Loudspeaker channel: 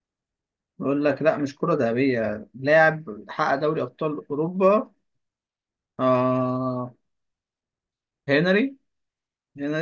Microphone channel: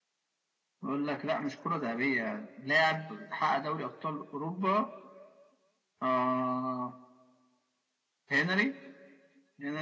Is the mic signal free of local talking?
Yes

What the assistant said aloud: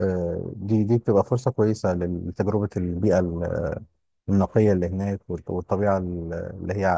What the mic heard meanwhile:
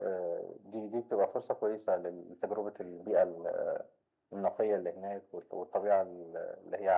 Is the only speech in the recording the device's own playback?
Yes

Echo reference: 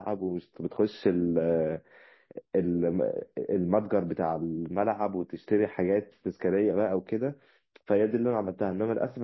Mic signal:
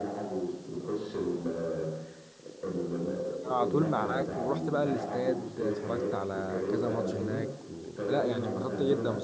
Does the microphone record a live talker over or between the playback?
Yes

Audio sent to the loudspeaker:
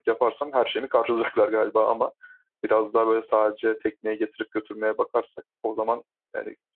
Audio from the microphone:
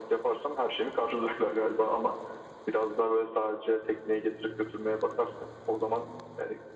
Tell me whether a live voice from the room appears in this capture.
No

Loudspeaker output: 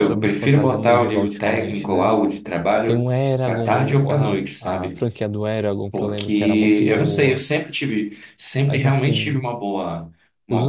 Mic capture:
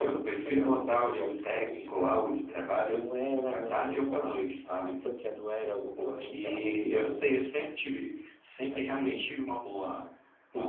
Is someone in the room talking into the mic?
No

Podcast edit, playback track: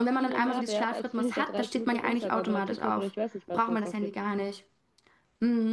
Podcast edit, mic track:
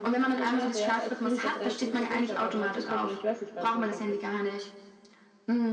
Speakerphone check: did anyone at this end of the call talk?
No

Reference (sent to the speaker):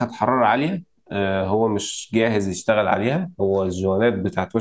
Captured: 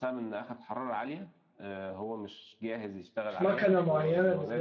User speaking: Yes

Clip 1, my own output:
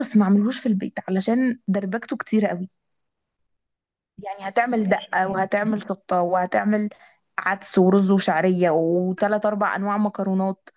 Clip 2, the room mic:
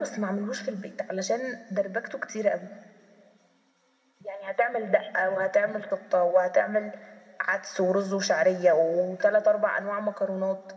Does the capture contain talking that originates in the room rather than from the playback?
No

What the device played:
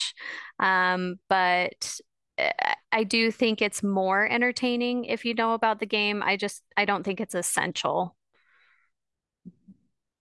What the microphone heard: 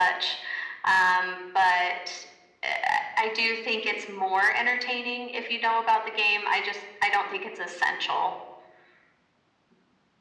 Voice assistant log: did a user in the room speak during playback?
No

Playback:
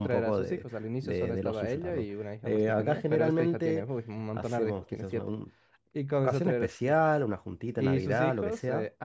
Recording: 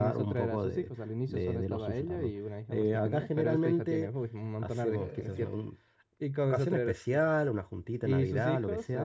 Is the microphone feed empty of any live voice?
No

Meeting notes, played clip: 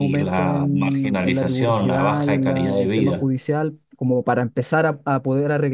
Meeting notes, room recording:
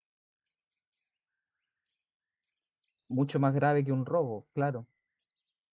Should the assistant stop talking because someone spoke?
Yes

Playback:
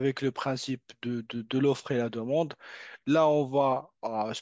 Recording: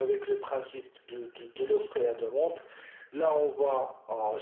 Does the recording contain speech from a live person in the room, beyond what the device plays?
No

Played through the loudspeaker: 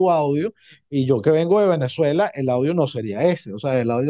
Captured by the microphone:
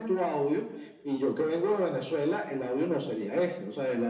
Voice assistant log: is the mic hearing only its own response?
Yes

